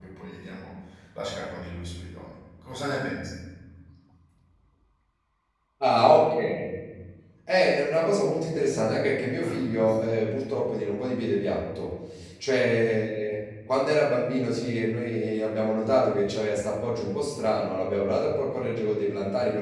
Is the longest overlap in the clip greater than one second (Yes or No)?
No